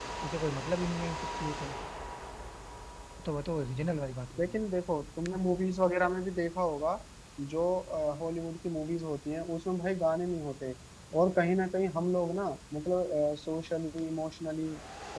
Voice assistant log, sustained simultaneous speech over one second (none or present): none